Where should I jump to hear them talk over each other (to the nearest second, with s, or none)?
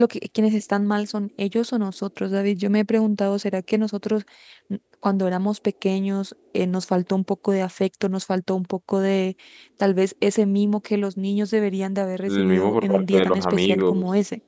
12 s